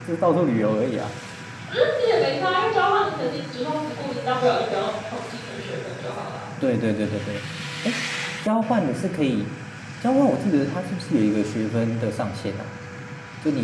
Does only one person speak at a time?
Yes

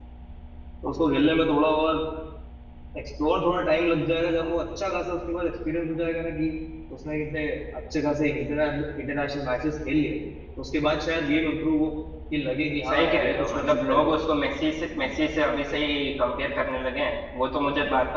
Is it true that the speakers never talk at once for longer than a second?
No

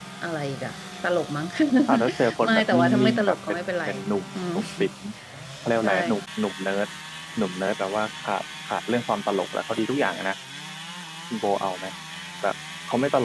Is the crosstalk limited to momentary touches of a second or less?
No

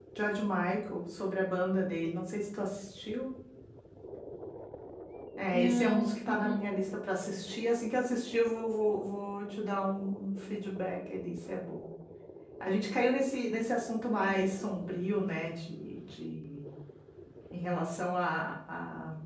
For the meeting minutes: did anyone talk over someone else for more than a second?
Yes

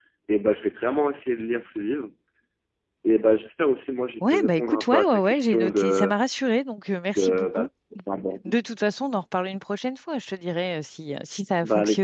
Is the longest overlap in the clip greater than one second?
Yes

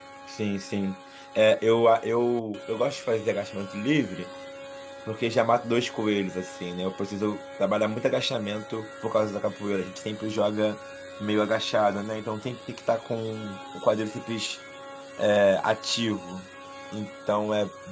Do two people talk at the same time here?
No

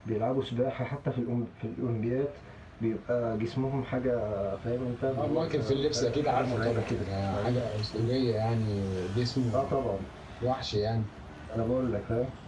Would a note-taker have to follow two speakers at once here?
Yes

